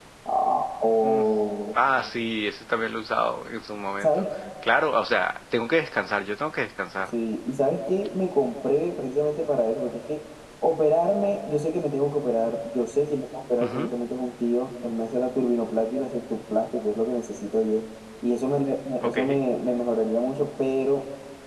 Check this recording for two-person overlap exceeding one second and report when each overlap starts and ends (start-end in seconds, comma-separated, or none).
none